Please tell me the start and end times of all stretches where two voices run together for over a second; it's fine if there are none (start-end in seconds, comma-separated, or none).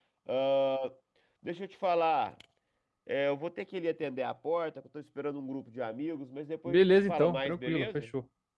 6.7-8.0